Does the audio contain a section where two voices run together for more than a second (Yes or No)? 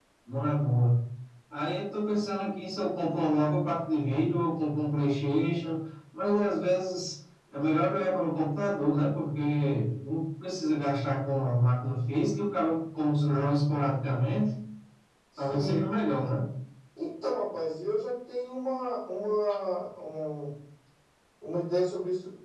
No